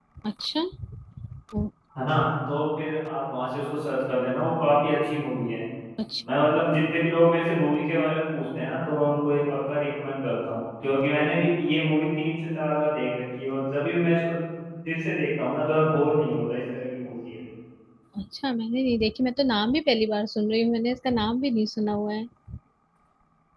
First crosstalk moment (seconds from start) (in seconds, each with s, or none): none